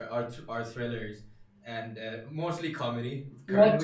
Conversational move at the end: listening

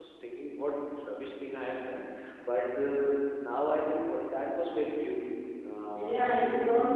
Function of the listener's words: taking over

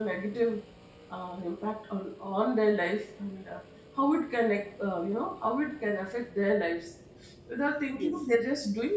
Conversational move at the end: listening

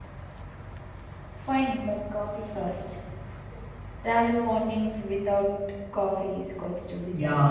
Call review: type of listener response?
taking over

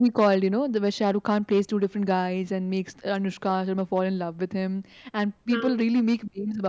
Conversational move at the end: listening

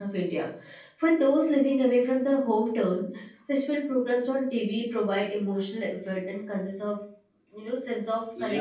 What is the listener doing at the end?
taking over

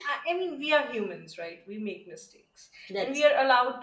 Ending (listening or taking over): listening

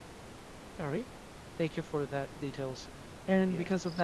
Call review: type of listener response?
listening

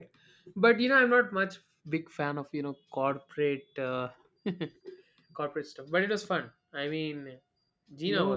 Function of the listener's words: taking over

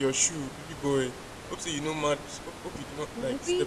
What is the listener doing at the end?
taking over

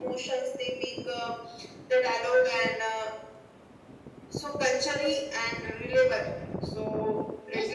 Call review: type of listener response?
taking over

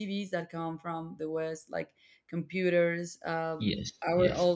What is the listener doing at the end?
listening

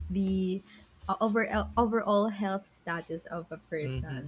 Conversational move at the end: taking over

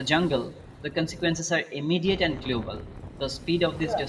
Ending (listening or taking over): listening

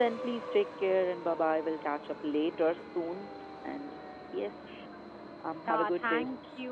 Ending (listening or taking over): taking over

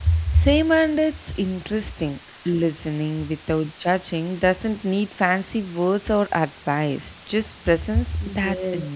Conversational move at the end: taking over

